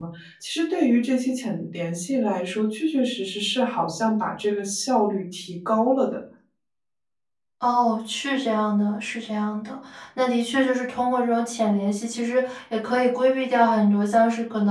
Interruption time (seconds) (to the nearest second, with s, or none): none